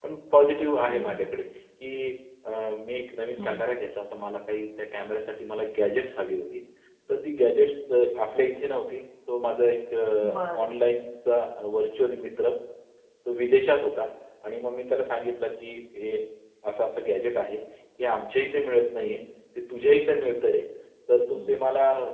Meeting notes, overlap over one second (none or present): none